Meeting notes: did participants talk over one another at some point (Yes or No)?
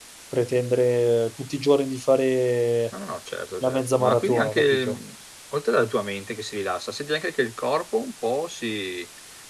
Yes